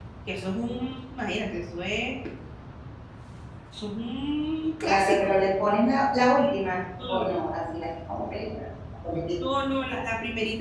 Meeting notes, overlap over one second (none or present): none